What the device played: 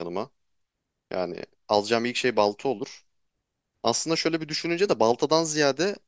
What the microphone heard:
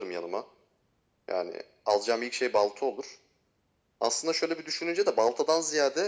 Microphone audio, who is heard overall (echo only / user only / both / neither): echo only